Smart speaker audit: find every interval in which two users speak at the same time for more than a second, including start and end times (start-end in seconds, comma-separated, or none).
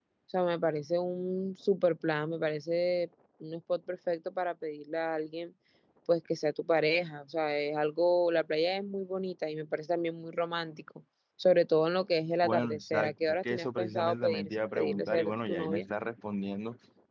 12.4-15.9